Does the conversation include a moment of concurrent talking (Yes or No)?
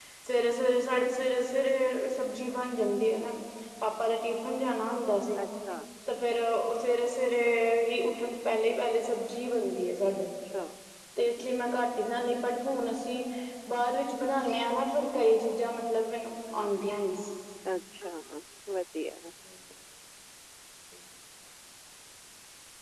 No